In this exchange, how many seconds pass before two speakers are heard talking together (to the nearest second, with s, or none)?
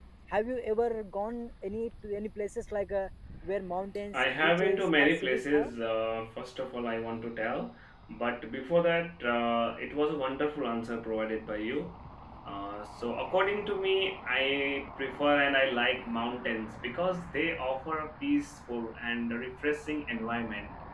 4 s